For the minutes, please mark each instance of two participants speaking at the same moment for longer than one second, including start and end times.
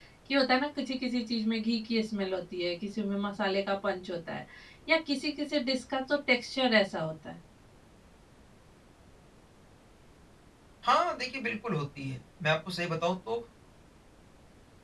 none

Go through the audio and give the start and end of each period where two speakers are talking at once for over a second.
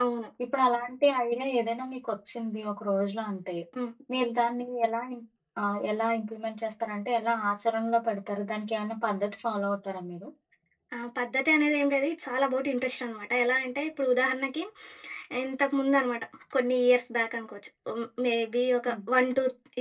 none

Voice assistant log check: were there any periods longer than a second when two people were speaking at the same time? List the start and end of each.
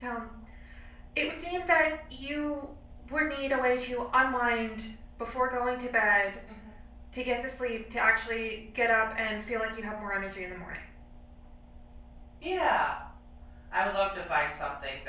none

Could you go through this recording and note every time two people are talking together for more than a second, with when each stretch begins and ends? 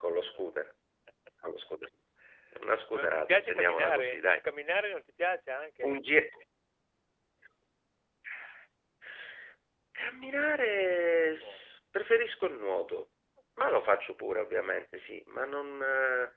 2.9-4.4

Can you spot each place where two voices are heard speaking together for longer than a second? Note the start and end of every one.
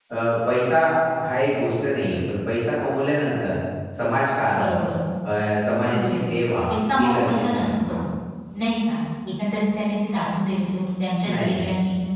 6.7-8.0

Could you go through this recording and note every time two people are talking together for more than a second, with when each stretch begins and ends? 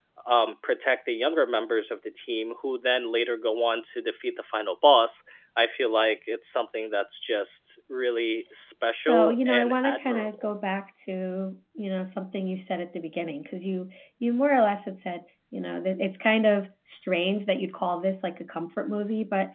9.1-10.5

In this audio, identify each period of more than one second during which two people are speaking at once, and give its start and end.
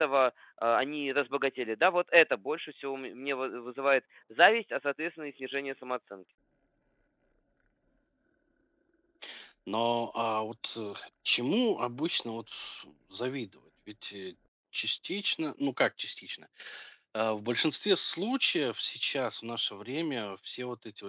none

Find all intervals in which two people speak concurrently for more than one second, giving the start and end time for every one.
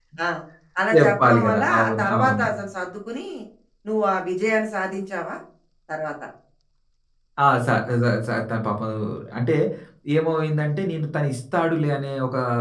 1.0-2.5

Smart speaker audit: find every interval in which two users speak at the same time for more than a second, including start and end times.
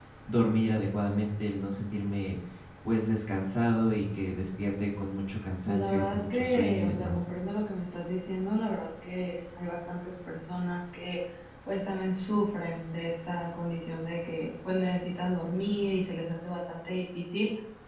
5.7-7.2

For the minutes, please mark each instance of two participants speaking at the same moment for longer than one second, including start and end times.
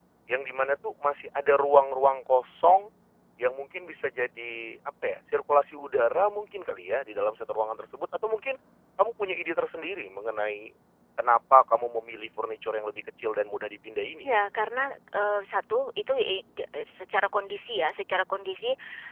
none

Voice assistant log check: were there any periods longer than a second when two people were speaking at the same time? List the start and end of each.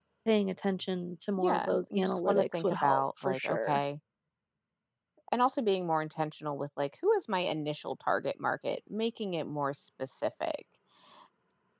1.4-3.8

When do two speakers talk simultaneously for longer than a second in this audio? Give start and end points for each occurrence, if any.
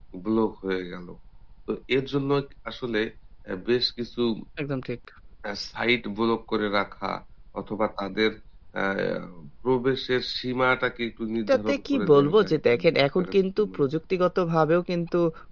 11.5-13.8

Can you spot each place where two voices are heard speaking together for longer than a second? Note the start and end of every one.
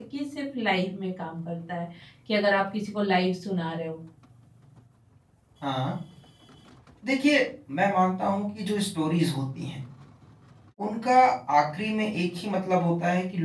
none

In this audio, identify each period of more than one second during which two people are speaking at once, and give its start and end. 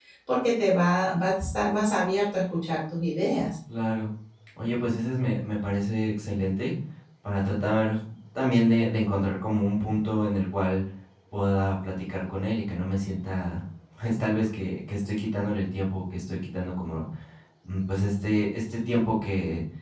none

